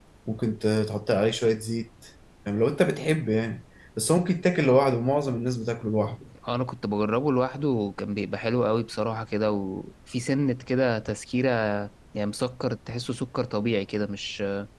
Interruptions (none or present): none